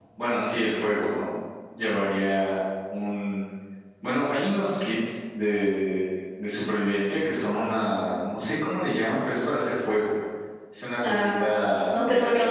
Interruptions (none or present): present